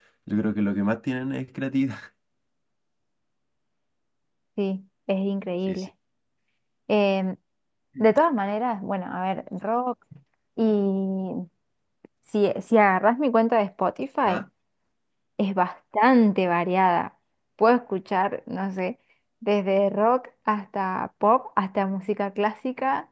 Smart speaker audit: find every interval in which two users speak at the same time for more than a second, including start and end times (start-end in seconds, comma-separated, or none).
none